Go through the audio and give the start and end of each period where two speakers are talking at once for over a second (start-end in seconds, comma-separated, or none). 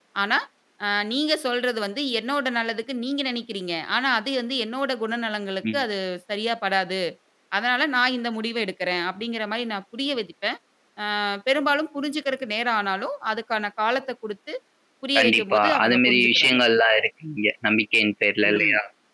15.2-16.6